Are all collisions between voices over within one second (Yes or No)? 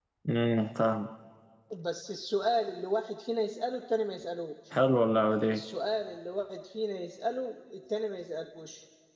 Yes